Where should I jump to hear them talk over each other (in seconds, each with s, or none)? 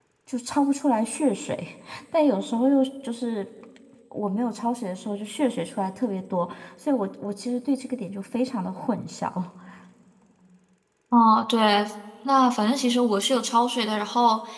none